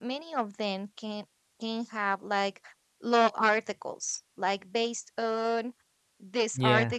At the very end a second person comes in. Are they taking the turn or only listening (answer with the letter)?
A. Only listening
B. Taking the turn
A